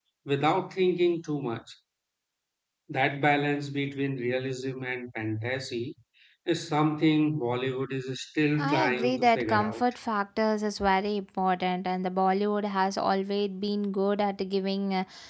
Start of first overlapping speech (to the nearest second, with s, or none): 9 s